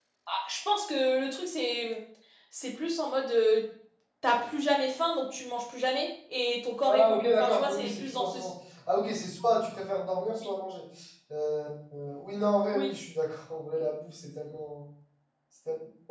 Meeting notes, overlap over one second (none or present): present